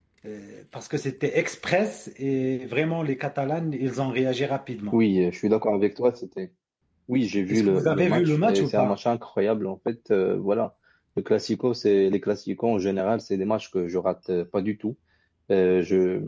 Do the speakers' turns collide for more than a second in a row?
Yes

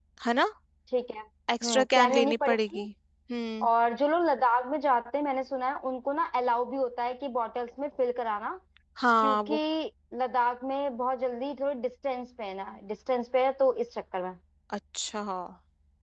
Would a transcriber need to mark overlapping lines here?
Yes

